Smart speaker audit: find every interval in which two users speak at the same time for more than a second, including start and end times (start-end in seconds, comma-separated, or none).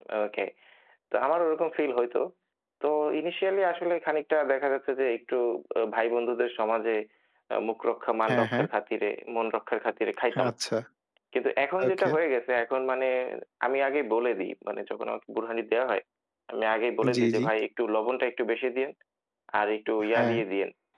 none